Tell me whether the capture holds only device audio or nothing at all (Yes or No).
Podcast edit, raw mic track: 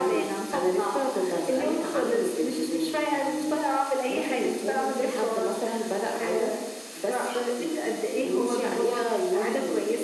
Yes